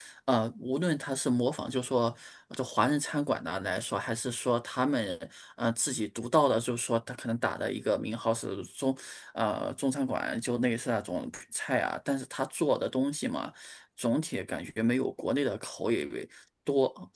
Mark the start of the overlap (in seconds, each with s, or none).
none